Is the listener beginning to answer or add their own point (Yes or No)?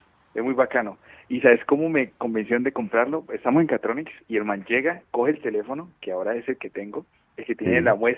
No